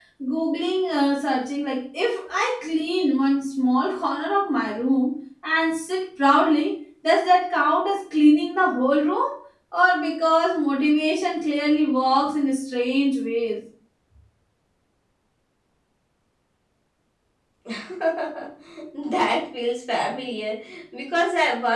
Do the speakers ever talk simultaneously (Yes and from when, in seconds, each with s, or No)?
No